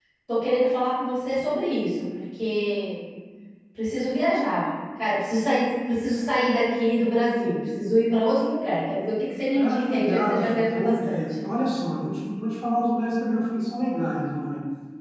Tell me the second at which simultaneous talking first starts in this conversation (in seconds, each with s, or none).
9.5 s